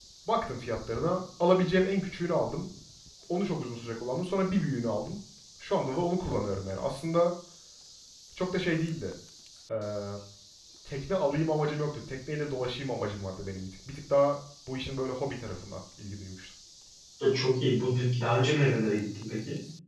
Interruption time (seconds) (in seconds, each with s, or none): none